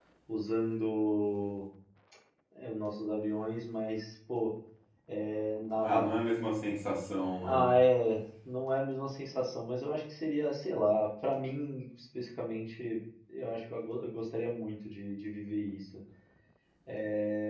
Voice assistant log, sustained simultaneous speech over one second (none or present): none